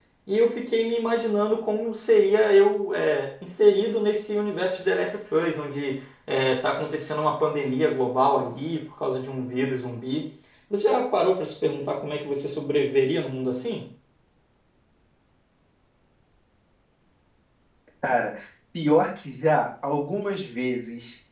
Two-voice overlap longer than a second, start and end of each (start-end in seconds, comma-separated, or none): none